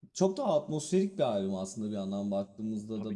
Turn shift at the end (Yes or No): No